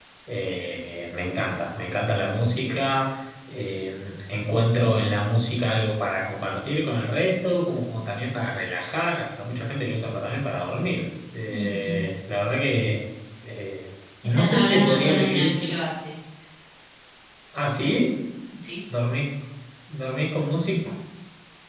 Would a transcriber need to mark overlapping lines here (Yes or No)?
Yes